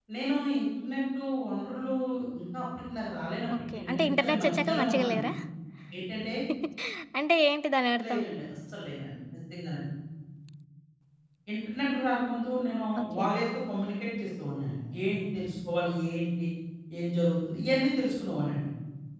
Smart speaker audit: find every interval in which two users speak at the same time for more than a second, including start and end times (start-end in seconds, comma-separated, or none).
3.7-5.3